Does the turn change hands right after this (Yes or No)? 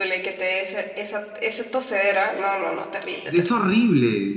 Yes